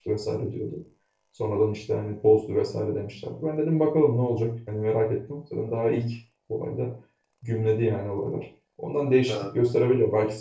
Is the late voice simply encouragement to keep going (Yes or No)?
Yes